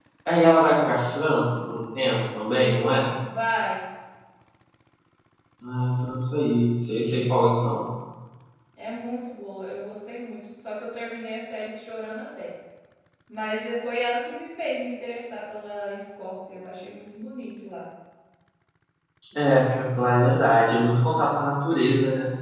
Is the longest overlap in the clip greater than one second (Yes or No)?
No